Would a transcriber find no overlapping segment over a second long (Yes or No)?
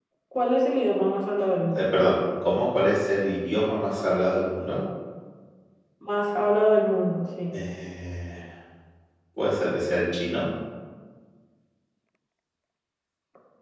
Yes